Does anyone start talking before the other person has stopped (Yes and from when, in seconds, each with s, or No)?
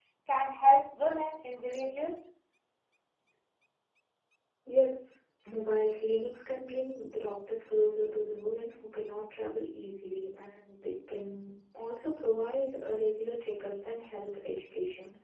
No